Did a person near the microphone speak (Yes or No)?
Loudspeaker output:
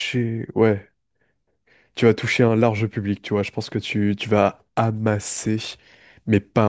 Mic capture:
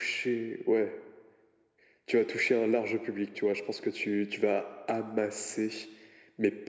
No